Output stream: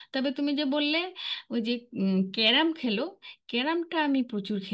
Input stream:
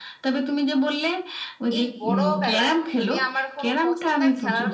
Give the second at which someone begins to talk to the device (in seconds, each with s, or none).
1.8 s